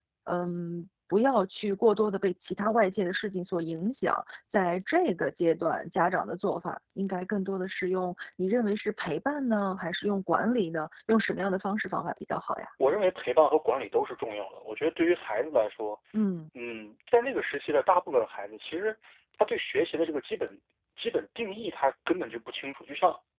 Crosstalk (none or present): none